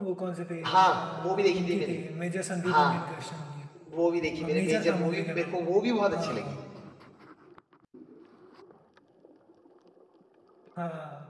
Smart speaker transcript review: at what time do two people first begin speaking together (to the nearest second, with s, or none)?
1 s